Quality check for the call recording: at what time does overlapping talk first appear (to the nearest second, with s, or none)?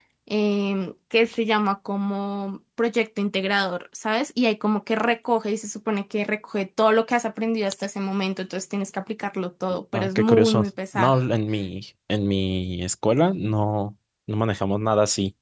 10 s